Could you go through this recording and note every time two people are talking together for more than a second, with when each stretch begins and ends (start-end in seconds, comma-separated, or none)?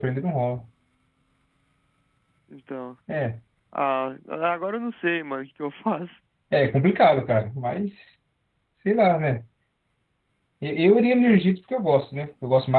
none